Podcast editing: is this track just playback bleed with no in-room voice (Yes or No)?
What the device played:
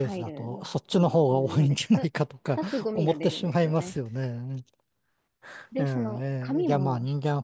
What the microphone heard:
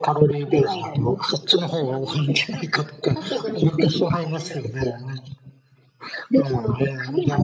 Yes